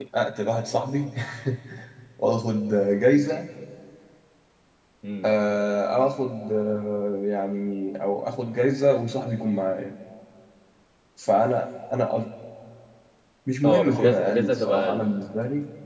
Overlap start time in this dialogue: 13.6 s

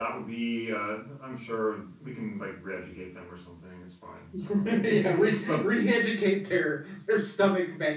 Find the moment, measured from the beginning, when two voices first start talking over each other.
4.3 s

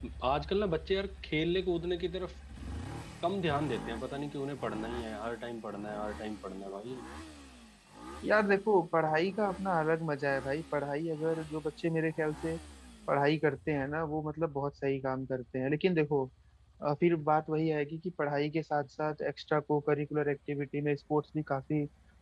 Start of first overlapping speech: none

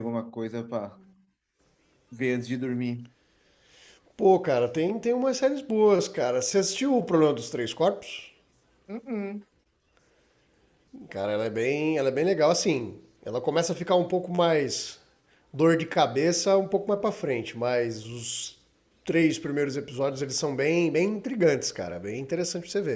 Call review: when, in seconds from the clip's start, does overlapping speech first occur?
none

